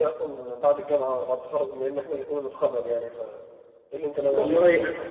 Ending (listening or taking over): taking over